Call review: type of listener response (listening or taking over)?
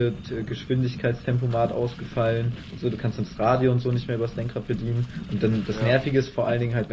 listening